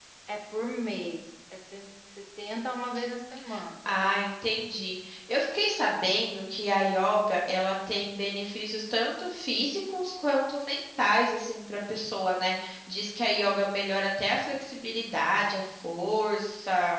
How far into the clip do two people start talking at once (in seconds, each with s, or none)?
none